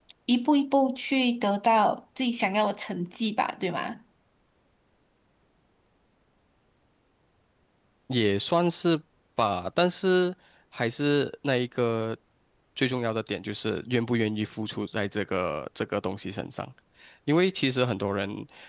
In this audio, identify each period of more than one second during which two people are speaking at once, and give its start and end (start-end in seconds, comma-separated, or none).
none